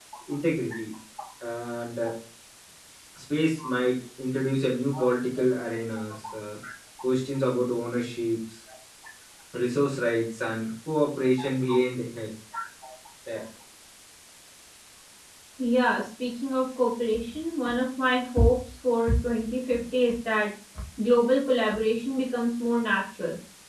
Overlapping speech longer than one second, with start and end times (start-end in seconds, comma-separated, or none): none